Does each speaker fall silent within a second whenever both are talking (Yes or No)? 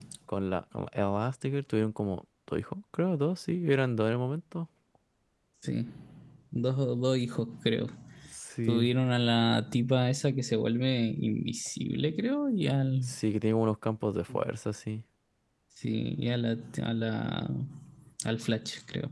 Yes